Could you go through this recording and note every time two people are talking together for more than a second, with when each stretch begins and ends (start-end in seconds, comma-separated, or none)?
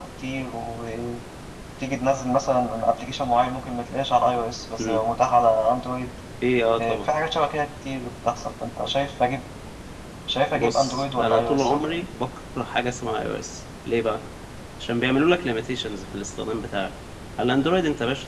10.5-12.0